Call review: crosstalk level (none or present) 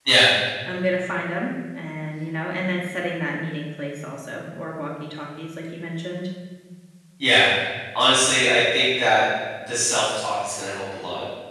none